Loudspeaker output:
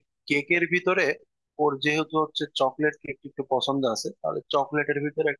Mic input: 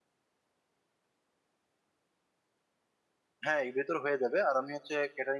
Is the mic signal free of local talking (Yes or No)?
No